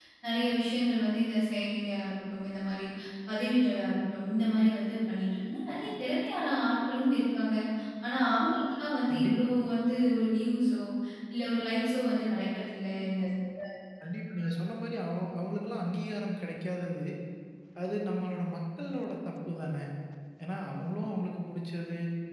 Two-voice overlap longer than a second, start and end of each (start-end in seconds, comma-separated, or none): none